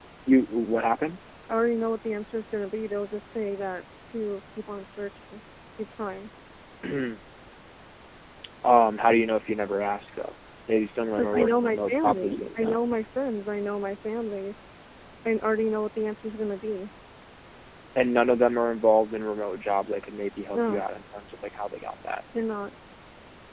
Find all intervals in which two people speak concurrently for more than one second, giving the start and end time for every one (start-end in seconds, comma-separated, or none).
11.2-12.8